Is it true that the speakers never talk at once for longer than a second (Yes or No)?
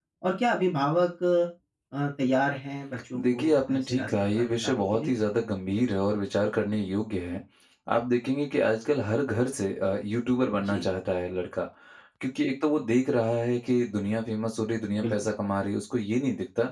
No